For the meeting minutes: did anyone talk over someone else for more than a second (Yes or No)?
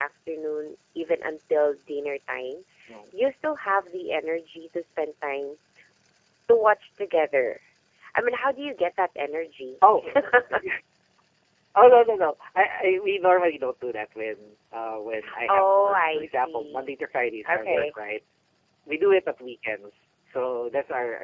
Yes